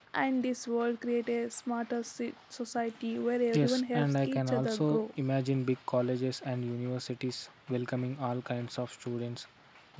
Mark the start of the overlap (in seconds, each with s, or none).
3.5 s